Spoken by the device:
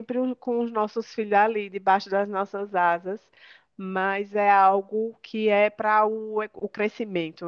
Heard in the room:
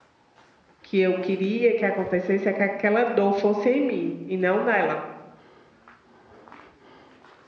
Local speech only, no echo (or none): que eu queria que acontecesse é que aquela dor fosse em mim e não nela.